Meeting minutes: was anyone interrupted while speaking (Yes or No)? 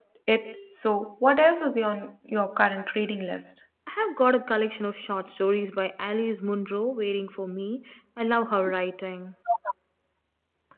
No